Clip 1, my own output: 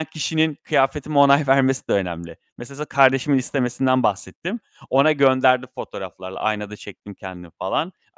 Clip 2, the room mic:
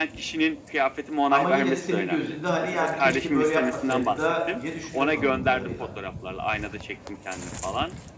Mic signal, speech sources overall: both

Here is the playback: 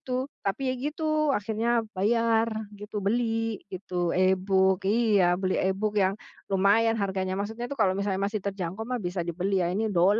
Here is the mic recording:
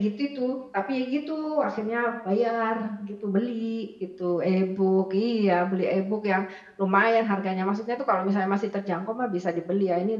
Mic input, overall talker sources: echo only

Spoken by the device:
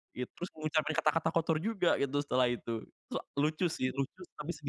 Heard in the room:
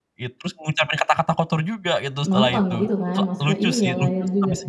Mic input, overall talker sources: both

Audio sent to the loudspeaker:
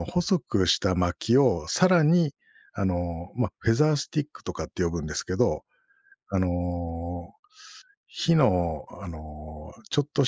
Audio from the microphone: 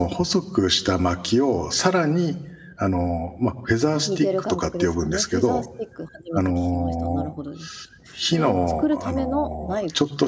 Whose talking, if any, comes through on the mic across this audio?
both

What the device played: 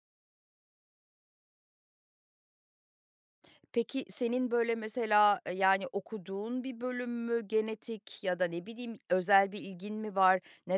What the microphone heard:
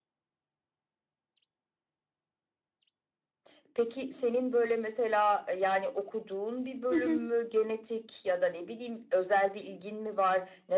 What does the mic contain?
both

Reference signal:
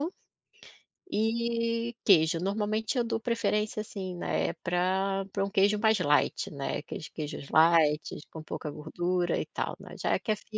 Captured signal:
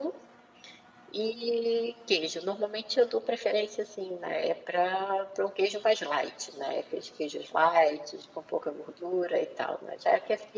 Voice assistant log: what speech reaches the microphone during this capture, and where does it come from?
echo only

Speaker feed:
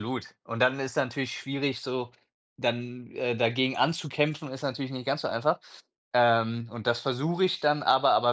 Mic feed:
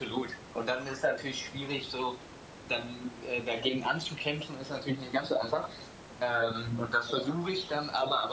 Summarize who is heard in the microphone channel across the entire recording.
echo only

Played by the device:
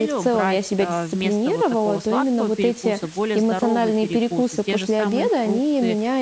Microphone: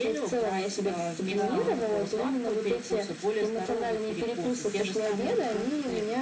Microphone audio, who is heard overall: both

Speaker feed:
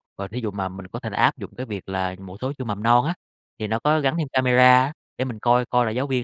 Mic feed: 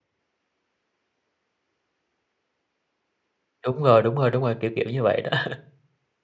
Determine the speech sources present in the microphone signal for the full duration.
user only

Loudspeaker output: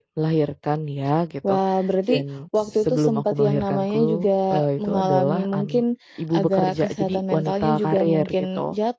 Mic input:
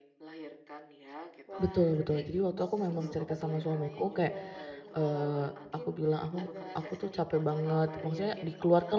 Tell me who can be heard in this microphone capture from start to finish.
both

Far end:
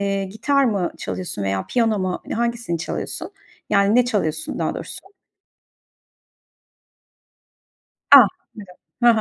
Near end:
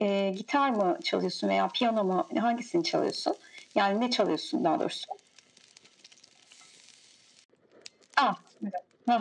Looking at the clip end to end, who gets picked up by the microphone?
echo only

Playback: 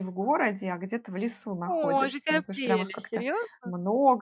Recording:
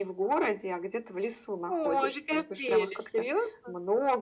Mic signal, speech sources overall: echo only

